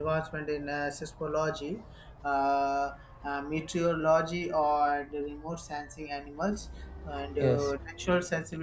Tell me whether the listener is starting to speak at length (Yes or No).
No